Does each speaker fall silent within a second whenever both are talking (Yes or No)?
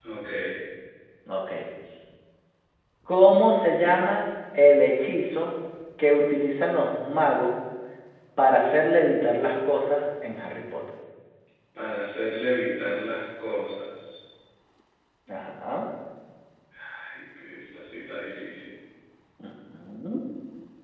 Yes